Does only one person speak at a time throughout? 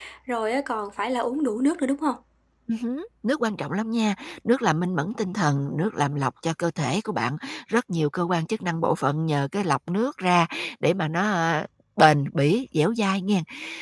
Yes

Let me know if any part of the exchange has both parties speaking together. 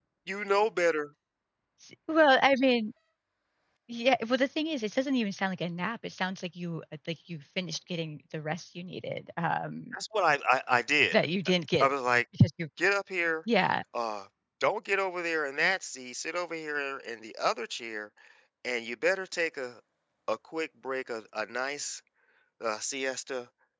No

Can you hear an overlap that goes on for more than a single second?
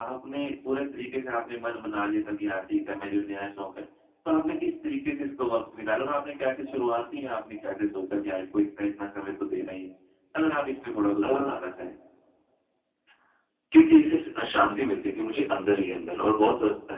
No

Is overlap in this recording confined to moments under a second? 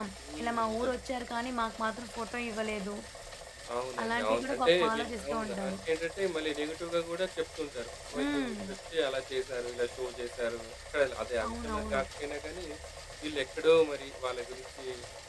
No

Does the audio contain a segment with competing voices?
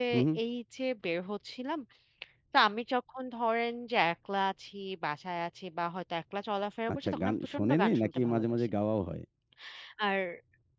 Yes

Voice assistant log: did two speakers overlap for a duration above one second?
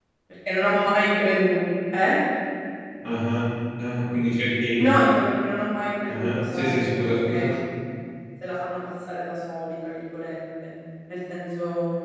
Yes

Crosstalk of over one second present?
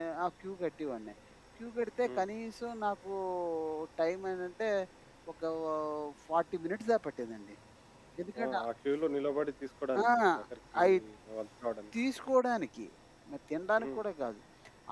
No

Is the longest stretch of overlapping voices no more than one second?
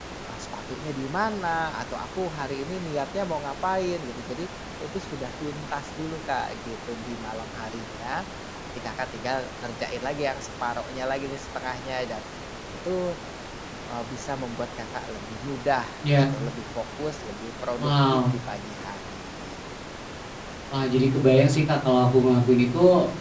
Yes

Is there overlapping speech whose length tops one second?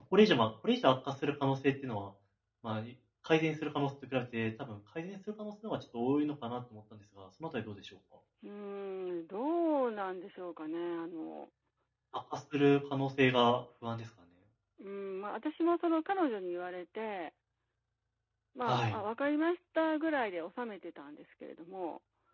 No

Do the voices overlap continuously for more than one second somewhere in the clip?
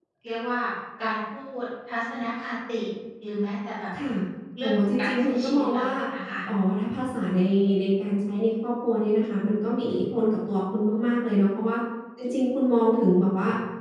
Yes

